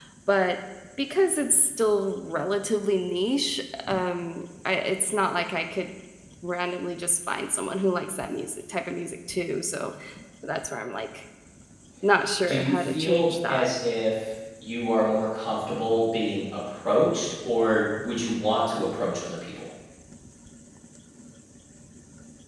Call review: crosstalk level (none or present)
present